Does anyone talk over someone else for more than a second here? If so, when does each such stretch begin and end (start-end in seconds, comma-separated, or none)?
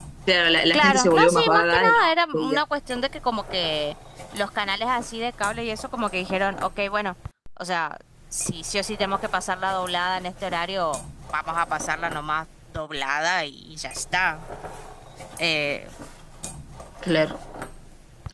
0.7-2.6